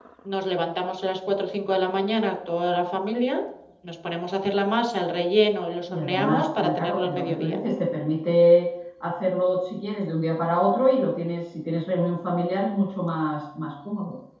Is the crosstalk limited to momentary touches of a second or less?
No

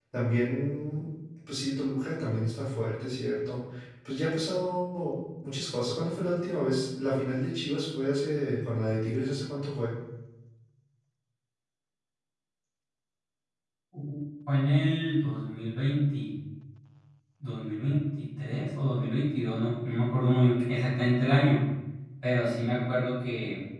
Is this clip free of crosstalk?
Yes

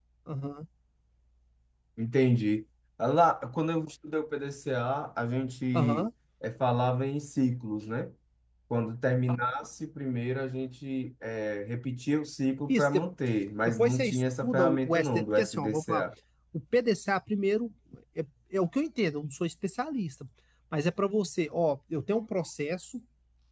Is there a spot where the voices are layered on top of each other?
Yes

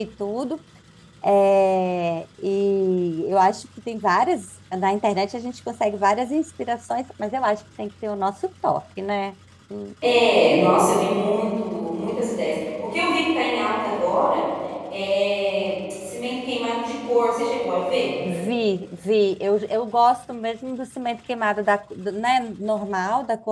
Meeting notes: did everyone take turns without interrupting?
Yes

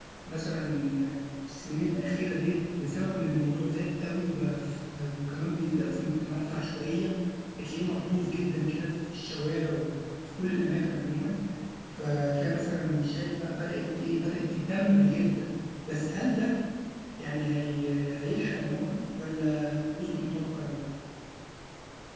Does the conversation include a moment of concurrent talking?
No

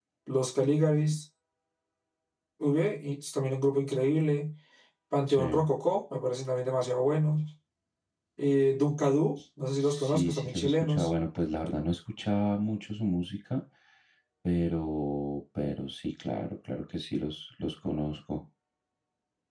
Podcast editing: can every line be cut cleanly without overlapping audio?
No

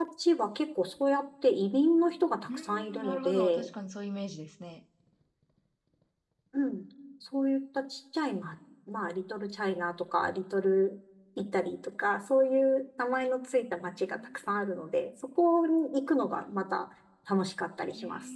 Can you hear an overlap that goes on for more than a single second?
Yes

